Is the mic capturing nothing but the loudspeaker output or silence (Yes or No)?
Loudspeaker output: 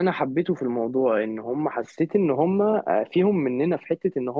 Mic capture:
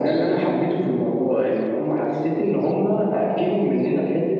Yes